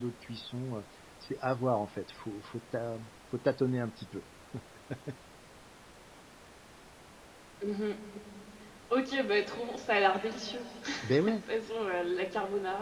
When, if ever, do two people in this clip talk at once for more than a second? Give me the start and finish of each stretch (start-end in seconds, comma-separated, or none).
none